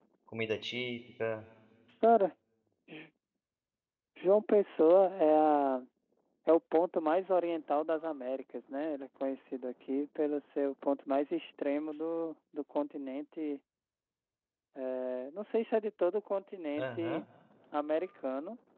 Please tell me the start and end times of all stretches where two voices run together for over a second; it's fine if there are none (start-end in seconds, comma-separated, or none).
none